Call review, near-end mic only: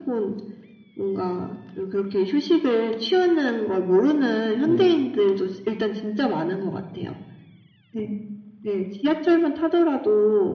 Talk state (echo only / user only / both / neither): both